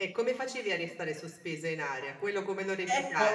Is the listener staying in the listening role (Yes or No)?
No